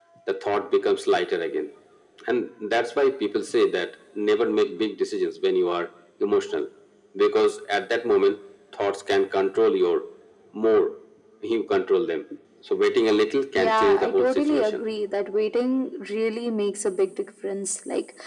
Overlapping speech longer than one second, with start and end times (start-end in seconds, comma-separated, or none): 13.6-14.8